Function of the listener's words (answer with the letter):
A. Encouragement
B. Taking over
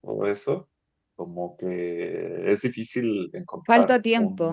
A